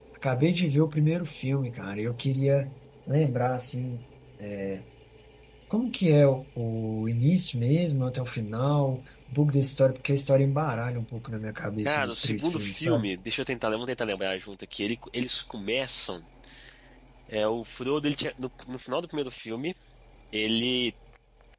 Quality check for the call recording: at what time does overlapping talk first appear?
11.8 s

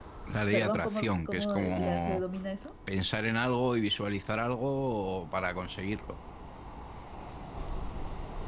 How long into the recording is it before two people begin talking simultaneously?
0.5 s

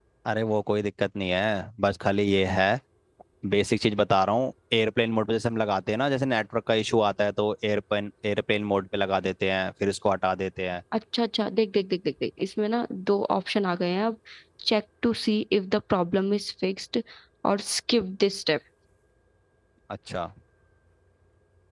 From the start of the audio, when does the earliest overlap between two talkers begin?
none

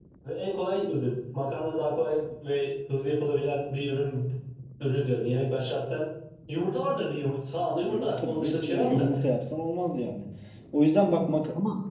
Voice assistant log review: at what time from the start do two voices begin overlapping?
7.8 s

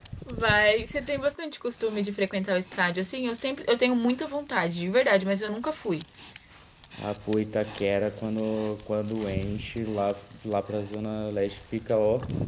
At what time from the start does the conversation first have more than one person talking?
none

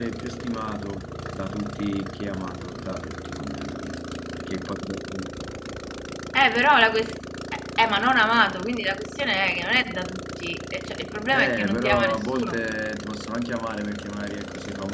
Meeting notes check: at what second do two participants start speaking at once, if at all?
11.3 s

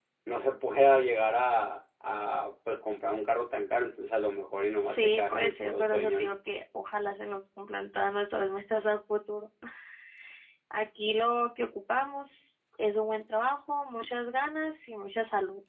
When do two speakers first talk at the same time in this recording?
4.8 s

